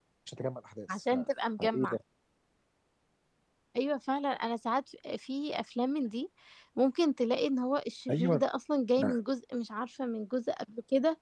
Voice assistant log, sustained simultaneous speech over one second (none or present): none